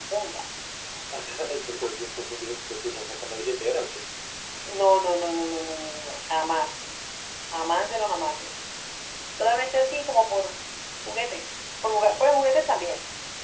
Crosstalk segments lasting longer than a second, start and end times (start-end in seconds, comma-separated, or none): none